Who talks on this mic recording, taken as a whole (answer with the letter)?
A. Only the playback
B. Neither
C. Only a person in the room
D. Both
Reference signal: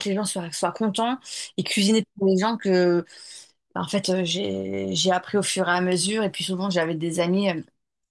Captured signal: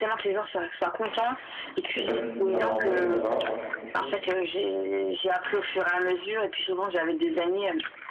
D